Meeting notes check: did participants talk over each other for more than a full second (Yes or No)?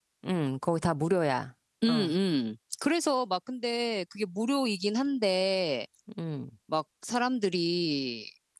No